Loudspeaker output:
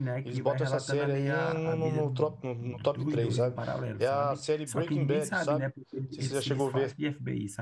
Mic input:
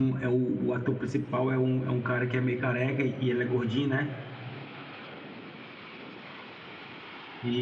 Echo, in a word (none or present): none